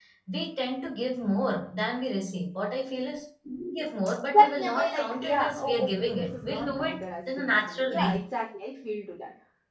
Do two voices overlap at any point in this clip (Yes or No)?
Yes